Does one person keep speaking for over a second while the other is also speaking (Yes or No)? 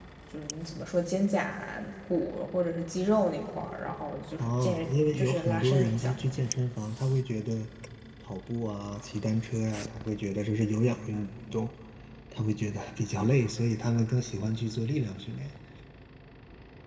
Yes